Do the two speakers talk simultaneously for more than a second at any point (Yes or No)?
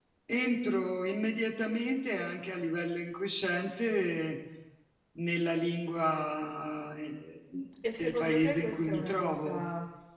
Yes